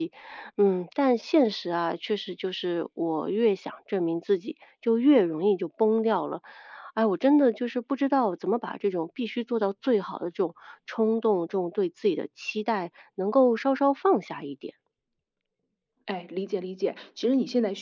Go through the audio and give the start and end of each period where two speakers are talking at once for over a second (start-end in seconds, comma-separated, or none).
none